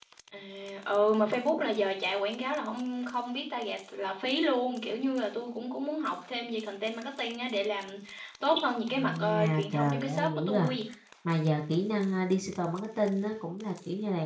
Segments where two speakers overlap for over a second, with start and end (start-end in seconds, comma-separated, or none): 8.9-10.7